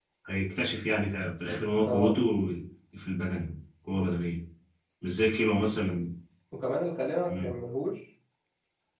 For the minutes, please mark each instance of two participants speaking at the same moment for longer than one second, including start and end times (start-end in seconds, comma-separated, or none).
none